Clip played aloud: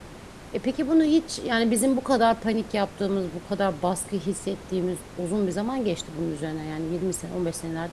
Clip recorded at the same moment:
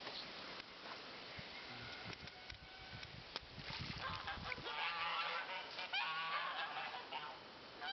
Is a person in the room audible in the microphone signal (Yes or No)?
No